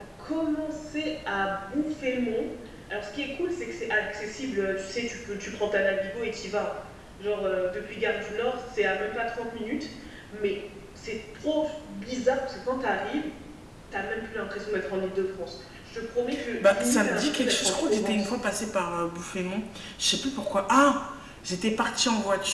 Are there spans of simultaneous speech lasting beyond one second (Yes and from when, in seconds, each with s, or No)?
Yes, from 16.6 s